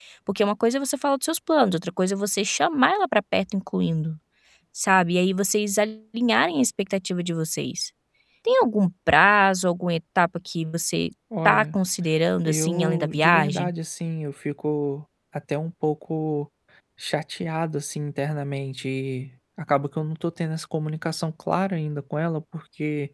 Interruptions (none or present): present